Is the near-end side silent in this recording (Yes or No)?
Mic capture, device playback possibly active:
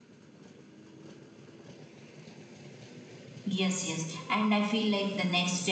No